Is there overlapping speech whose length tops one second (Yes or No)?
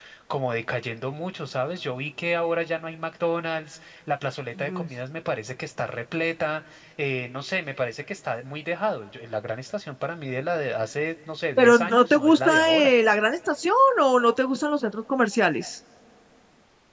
Yes